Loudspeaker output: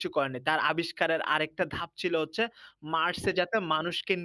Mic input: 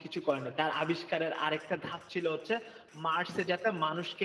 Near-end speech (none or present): none